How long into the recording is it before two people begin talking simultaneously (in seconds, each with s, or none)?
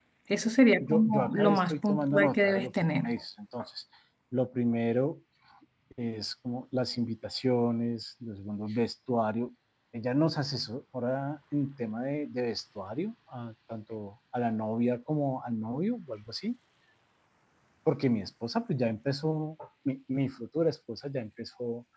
0.8 s